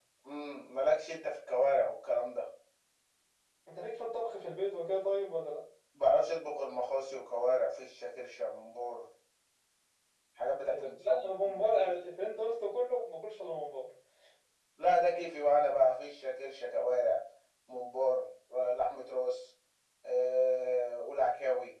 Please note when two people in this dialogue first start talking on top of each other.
10.7 s

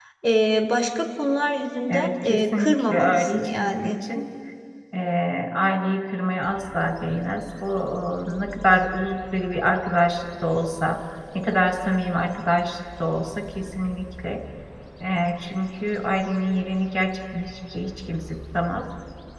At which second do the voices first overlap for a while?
1.9 s

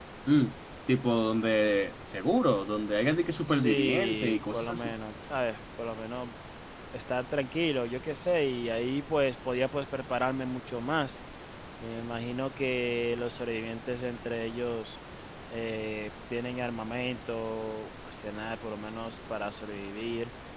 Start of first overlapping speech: 3.5 s

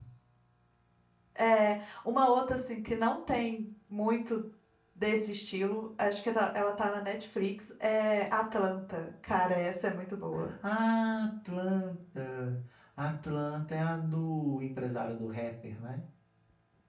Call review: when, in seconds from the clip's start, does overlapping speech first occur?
none

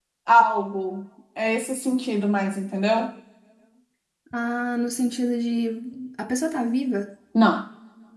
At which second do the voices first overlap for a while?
none

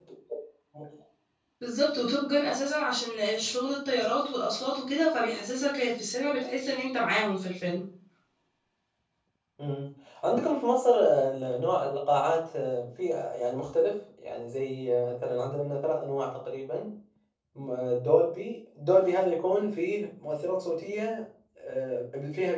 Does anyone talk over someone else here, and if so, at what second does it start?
none

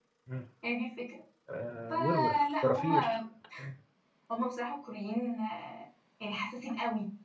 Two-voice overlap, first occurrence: 1.9 s

